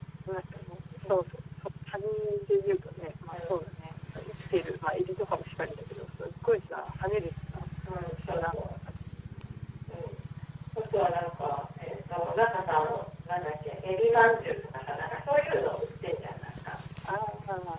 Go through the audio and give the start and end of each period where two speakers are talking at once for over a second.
none

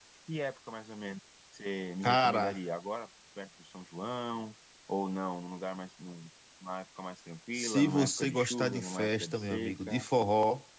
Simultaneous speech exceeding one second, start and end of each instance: 7.5-10.1

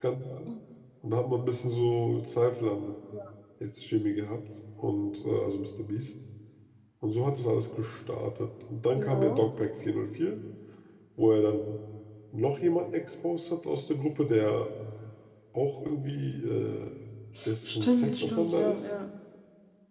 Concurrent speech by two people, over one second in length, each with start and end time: 17.6-18.9

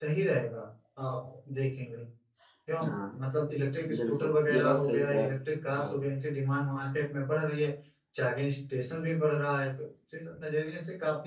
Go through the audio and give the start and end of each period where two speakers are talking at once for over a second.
4.0-5.3

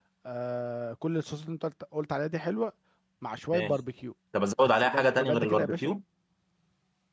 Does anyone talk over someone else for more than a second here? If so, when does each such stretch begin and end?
4.6-5.9

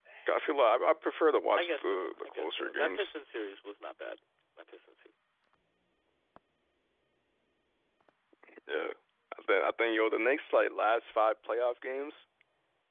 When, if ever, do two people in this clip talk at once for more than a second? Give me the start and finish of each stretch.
1.6-3.1

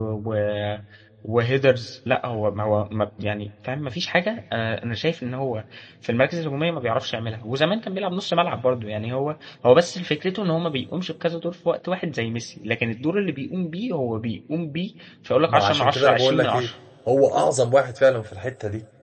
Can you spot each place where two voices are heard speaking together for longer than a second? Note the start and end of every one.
15.5-16.7

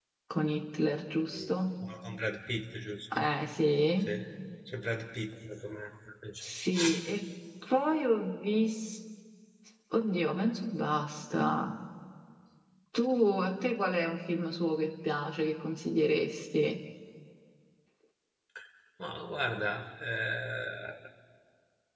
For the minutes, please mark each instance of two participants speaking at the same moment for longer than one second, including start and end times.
none

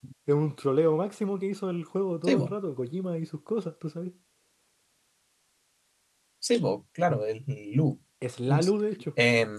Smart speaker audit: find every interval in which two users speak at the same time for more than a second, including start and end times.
none

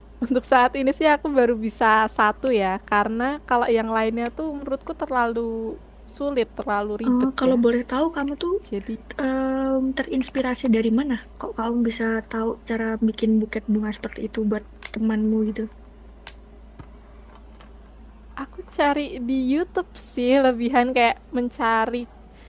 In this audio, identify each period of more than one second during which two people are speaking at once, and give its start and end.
none

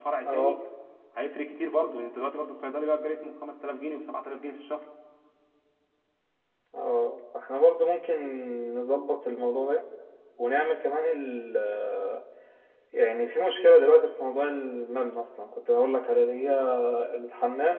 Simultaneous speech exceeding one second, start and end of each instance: none

